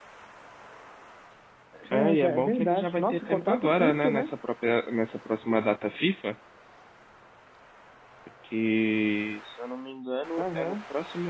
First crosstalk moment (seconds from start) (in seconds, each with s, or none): 1.9 s